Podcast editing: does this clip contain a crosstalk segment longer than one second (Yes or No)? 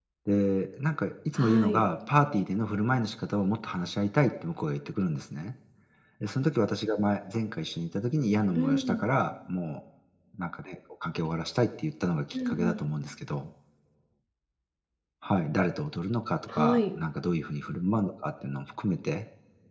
No